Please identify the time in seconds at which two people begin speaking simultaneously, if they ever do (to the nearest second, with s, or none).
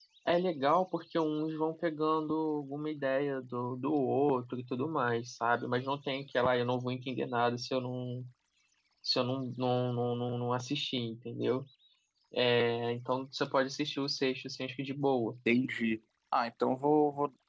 none